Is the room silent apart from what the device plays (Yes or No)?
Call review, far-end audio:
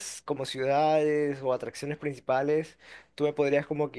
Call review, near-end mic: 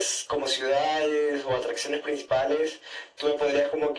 Yes